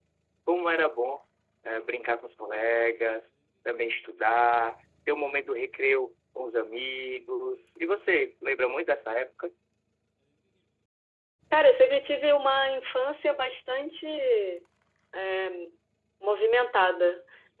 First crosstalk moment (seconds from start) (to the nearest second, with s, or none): none